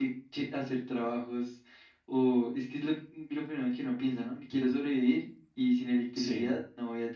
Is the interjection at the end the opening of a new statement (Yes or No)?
No